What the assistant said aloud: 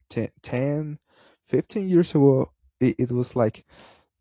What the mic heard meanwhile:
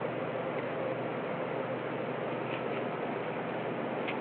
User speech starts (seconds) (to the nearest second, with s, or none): none